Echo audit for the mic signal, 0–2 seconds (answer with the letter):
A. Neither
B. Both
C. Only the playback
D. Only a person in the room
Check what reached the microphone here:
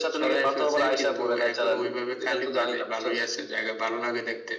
C